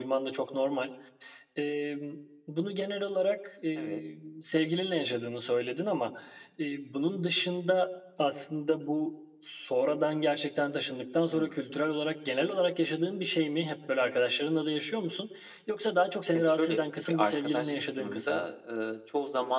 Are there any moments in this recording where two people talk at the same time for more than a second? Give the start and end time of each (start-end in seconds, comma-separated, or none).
16.3-18.5